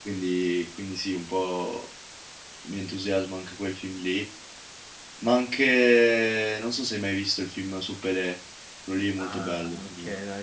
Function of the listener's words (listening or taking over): taking over